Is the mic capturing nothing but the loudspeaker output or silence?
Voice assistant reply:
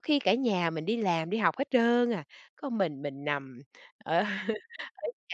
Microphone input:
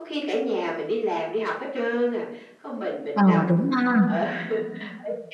No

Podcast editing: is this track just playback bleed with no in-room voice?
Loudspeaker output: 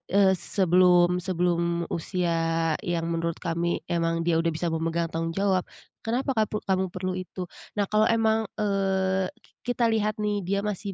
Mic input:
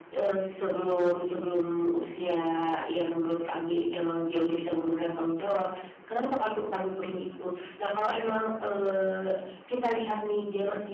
Yes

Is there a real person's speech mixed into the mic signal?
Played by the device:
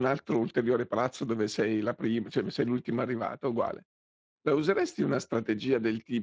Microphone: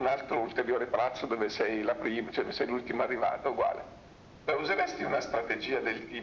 No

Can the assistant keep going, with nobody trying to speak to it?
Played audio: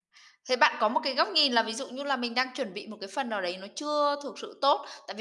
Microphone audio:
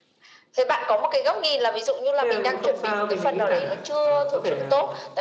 No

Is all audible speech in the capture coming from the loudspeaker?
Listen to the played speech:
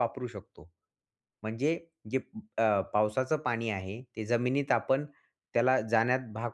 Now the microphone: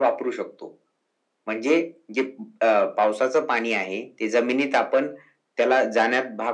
Yes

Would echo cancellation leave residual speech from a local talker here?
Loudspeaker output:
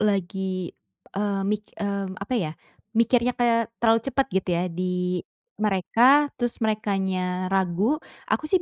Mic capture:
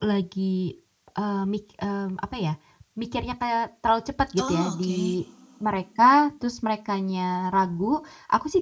Yes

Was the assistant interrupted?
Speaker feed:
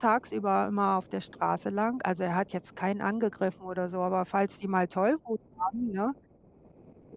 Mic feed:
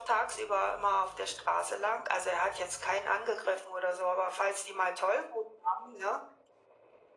No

